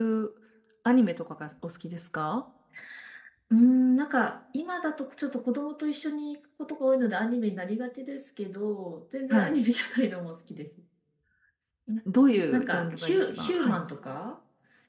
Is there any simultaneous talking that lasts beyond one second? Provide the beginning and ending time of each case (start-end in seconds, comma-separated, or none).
12.5-13.8